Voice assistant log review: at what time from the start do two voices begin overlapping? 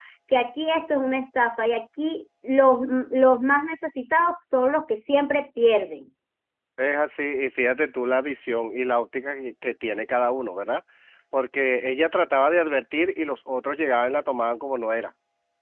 none

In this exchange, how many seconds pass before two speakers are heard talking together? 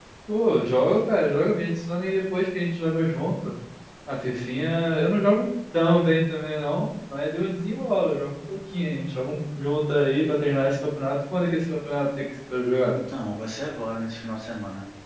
none

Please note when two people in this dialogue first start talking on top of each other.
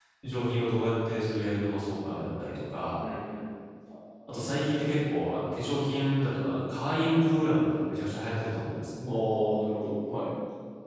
none

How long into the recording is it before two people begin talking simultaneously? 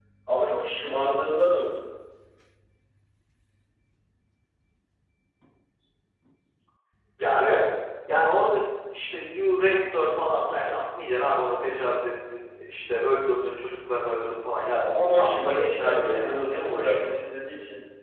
14.8 s

